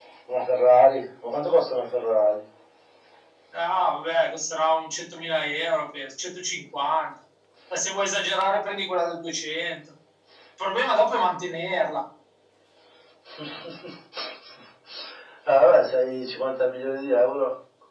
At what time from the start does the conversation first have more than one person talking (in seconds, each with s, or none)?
none